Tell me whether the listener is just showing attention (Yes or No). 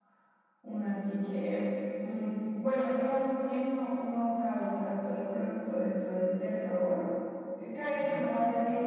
Yes